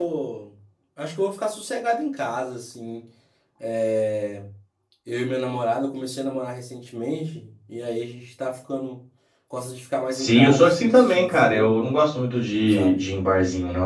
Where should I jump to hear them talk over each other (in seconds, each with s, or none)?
10.1 s